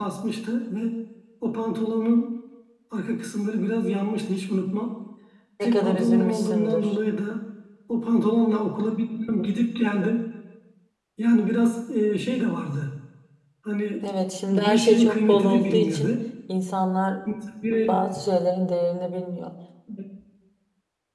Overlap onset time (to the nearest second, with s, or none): 6 s